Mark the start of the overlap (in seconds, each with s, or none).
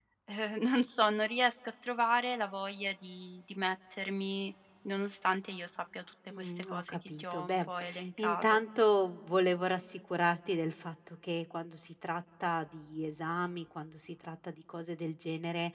6.3 s